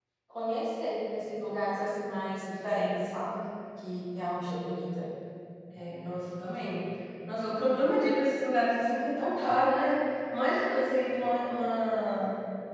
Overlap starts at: none

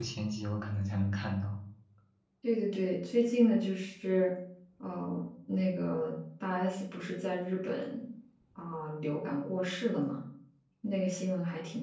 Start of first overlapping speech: none

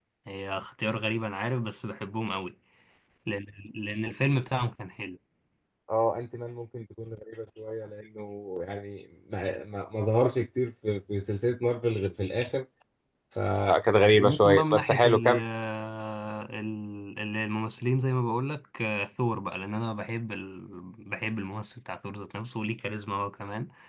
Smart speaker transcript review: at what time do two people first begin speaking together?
14.1 s

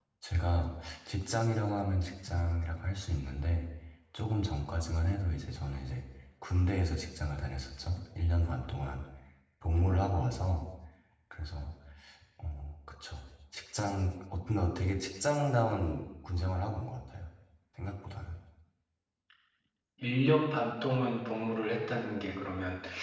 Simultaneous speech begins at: none

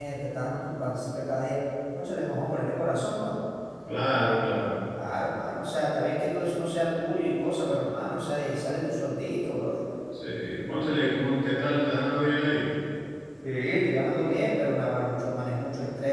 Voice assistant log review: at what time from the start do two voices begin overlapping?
none

